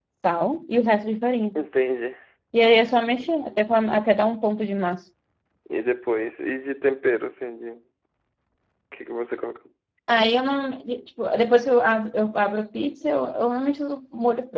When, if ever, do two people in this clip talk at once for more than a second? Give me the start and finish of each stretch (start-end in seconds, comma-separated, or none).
none